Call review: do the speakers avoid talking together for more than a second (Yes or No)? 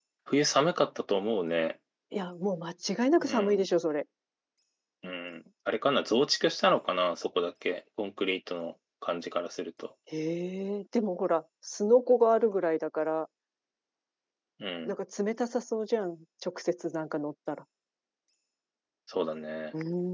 Yes